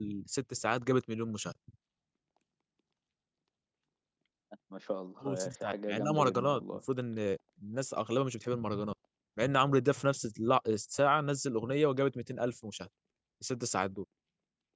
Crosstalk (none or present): present